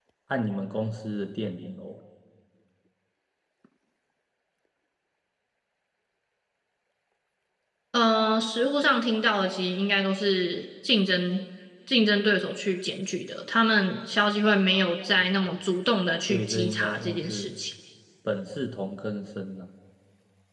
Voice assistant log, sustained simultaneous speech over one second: present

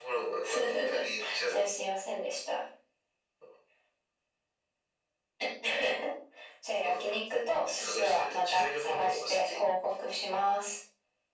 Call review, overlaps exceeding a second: present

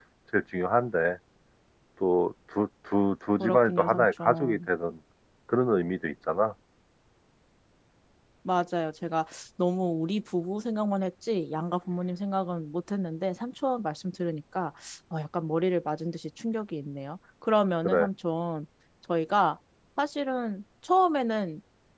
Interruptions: present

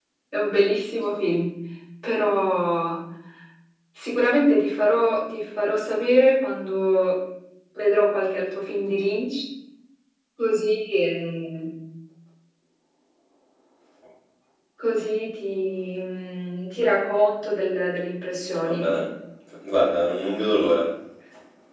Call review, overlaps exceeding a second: none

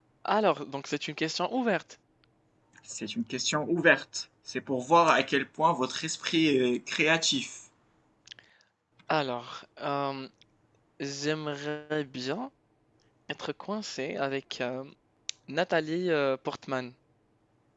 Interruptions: none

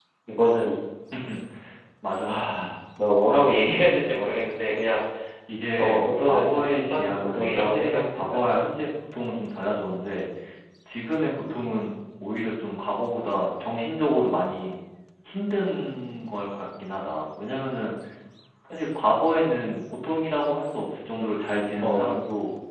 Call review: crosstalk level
present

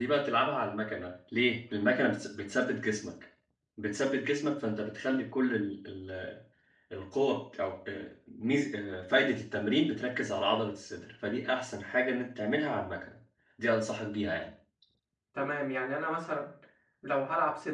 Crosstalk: none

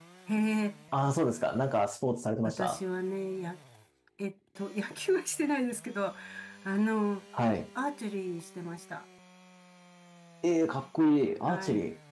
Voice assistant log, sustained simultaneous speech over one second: none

